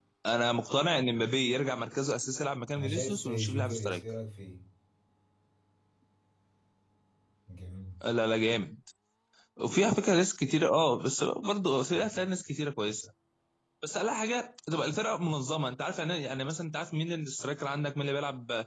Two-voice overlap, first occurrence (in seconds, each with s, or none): 2.7 s